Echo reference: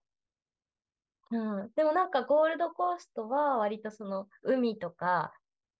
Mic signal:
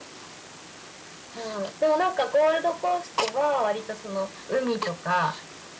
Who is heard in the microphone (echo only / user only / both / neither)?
echo only